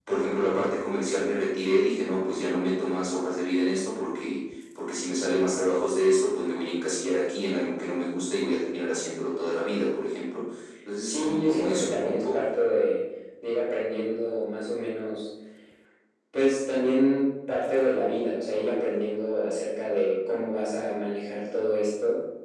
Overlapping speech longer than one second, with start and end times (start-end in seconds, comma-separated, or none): 11.0-12.5